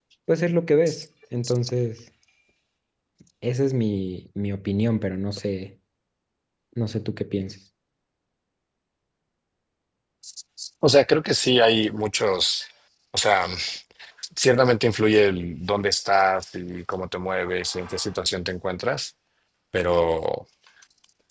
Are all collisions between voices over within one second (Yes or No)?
Yes